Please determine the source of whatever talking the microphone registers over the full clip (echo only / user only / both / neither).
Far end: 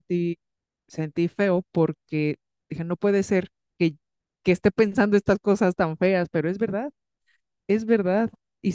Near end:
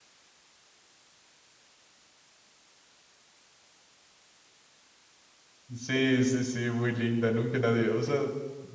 user only